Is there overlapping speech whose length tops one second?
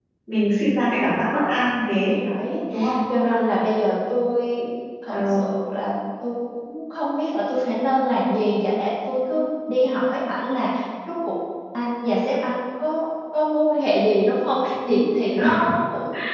No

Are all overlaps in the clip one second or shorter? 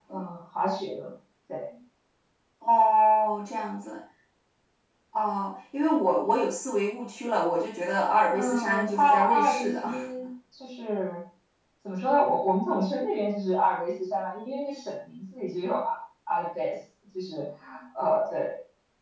No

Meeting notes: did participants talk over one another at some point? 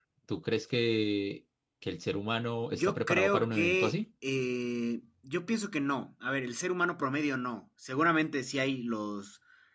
Yes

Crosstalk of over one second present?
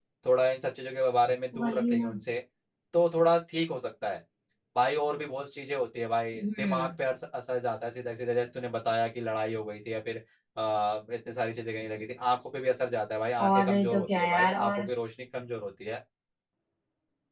Yes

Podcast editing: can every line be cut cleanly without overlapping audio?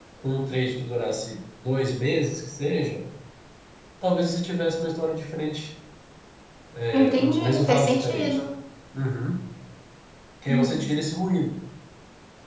No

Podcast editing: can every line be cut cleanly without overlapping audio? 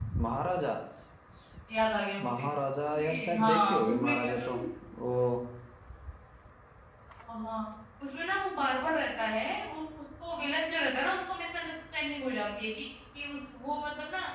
No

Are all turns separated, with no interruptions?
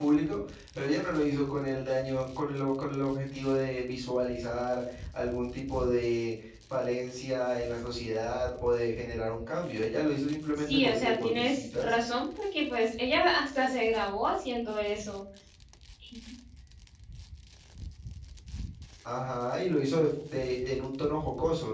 No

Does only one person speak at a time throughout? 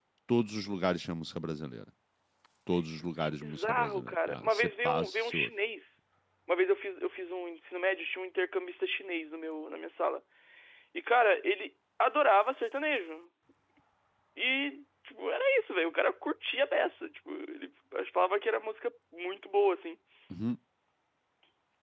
No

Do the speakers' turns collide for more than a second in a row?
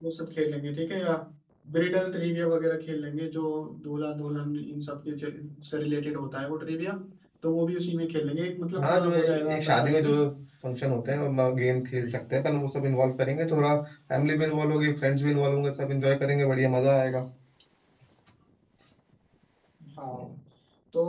Yes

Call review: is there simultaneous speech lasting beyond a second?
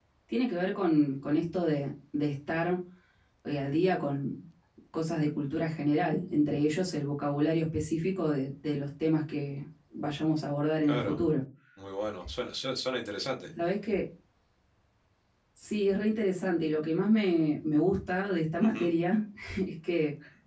No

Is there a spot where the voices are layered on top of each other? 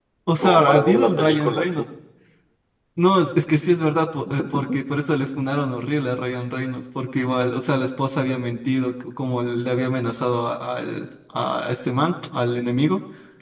Yes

